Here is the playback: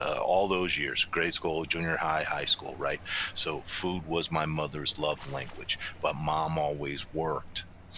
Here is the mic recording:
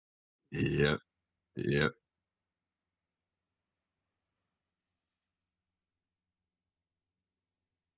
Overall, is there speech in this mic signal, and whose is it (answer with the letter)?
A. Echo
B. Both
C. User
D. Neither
C